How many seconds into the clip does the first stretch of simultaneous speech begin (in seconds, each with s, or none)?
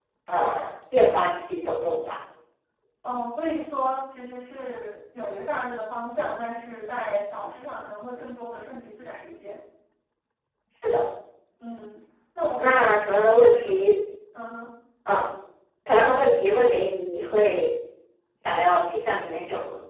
12.6 s